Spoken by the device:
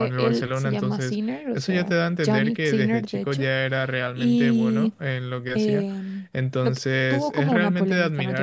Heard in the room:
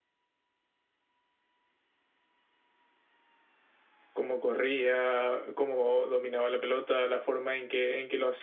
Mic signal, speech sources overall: user only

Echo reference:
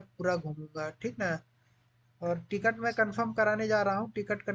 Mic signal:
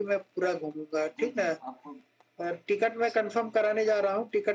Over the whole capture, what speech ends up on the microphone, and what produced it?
both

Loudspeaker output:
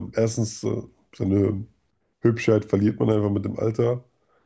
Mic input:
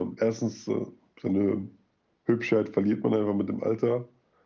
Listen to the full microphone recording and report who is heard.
echo only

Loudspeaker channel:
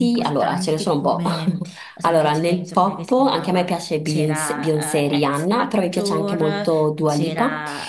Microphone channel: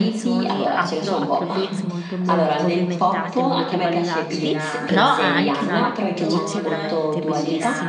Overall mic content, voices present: both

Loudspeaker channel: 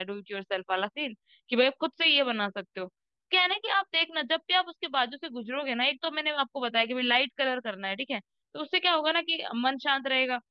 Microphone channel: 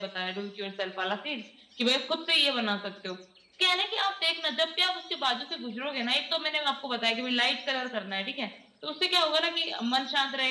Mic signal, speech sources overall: echo only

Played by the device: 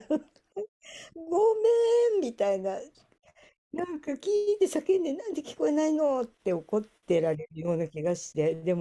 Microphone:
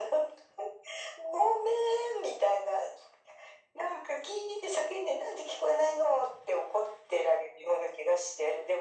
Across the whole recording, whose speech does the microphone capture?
echo only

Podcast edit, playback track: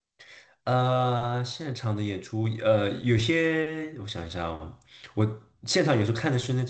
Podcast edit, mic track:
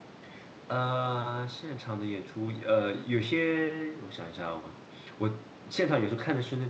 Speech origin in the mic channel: echo only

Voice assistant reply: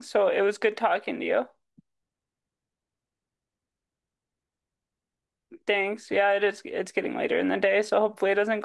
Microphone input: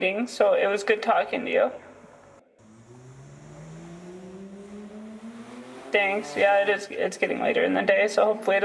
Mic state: echo only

